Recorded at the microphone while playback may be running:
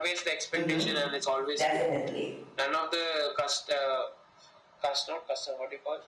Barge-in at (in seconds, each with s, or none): 0.5 s